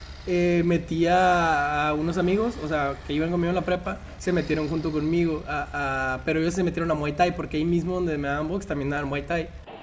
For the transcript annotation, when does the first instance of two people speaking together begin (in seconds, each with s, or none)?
none